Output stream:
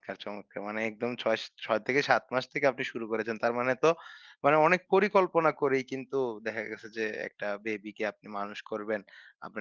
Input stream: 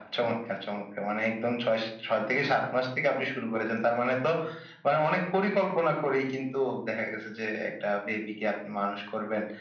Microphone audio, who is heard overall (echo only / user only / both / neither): echo only